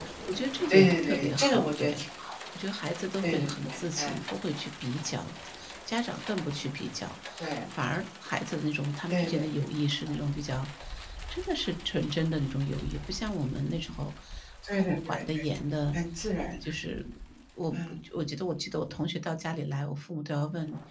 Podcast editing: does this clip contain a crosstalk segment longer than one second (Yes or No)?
Yes